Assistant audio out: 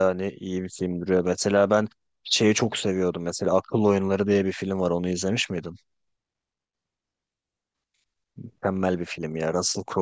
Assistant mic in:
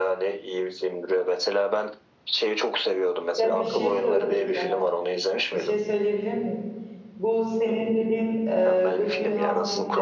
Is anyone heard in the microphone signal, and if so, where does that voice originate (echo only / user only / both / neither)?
both